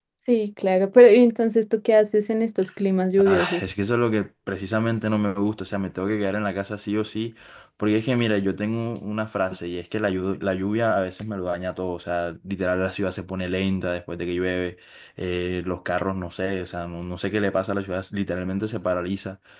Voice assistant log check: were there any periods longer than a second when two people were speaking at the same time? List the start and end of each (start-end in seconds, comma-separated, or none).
none